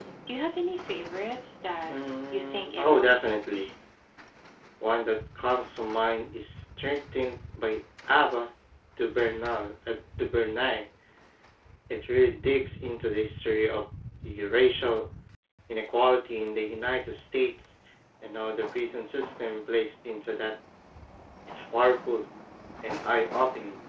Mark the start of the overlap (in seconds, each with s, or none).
1.9 s